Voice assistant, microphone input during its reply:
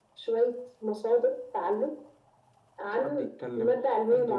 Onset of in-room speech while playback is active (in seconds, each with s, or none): 3.0 s